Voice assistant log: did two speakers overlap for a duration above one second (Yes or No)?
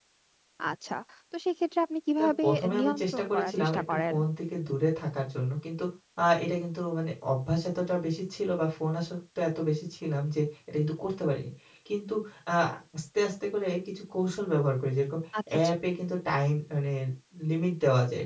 Yes